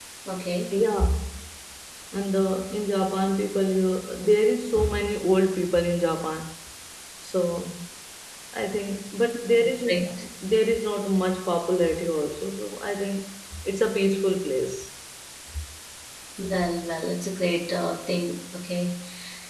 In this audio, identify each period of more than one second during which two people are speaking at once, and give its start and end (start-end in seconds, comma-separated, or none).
none